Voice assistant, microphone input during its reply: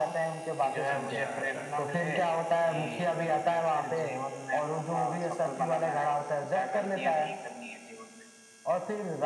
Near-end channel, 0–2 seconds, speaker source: both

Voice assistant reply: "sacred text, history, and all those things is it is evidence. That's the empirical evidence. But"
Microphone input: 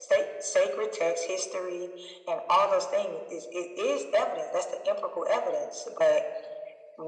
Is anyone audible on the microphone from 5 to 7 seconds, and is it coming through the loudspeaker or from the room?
echo only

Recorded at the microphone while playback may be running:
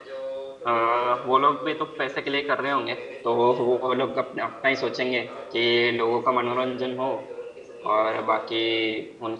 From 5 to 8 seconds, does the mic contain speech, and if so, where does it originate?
both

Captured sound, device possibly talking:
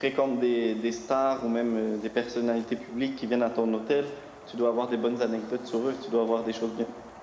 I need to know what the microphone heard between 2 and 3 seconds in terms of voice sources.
echo only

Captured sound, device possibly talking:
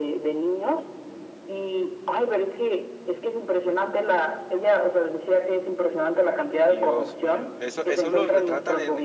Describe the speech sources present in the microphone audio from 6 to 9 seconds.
both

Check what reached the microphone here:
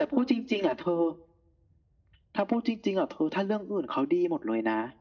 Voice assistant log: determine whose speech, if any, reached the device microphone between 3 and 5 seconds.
echo only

